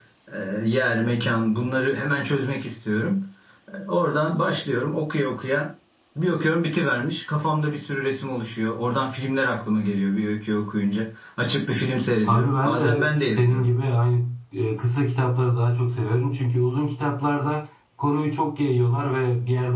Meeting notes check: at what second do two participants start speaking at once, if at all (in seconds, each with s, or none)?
12.2 s